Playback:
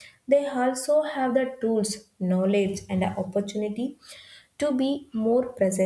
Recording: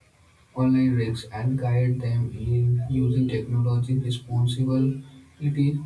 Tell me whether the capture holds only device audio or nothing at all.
No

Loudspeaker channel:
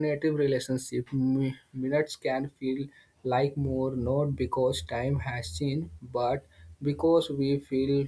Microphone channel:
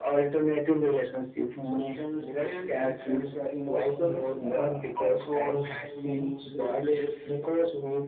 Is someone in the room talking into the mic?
Yes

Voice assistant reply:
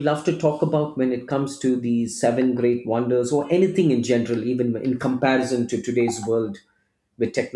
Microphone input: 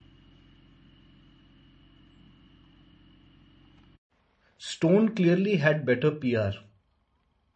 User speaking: Yes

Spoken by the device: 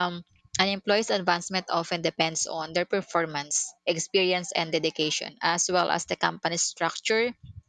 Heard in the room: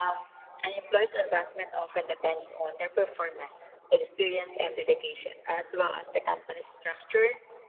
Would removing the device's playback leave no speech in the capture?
Yes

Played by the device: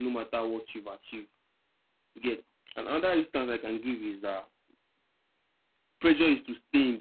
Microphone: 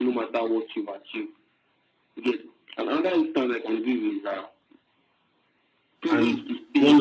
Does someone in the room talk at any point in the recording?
Yes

